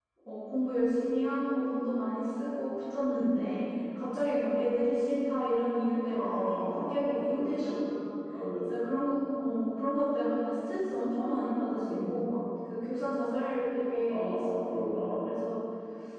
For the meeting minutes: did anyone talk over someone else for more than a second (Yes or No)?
Yes